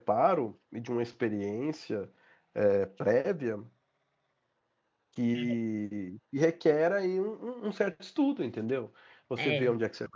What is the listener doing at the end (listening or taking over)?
listening